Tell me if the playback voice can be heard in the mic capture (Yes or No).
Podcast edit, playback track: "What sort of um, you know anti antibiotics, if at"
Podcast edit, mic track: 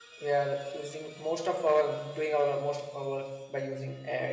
No